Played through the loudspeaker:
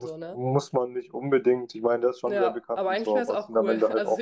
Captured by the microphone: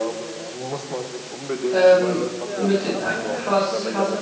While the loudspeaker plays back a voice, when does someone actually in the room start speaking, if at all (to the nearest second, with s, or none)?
2 s